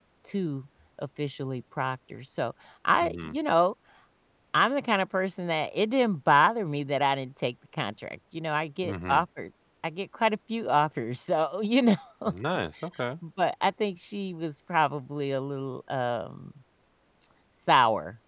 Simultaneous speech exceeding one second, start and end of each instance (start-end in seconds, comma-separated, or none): none